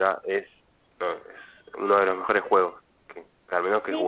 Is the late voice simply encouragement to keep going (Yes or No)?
No